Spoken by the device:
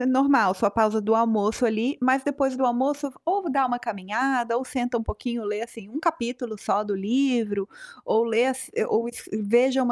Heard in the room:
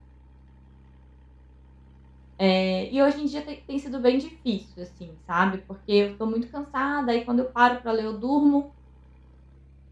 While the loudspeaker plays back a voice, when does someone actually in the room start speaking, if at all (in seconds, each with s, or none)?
2.4 s